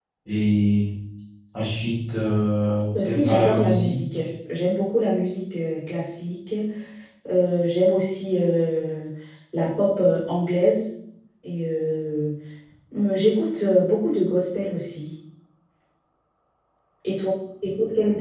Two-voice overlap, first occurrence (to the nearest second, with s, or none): 3 s